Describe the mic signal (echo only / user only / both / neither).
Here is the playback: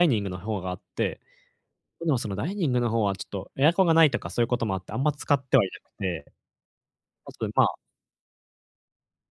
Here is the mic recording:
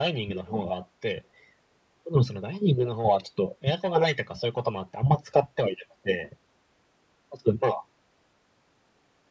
echo only